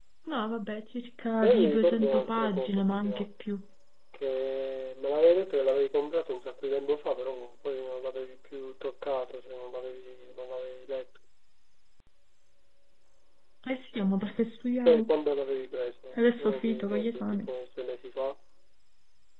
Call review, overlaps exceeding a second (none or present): present